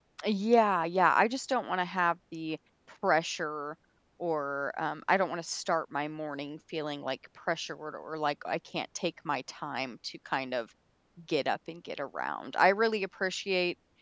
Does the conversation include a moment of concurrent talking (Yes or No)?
No